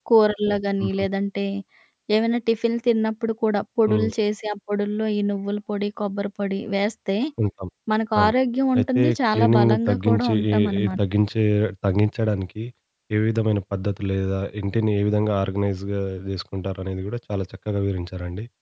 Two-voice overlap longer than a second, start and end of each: 8.8-10.9

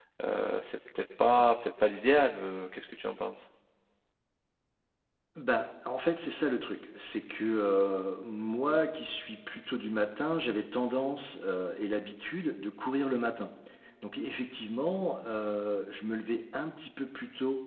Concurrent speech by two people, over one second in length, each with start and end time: none

